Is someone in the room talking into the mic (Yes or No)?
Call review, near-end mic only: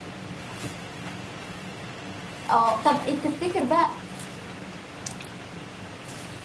Yes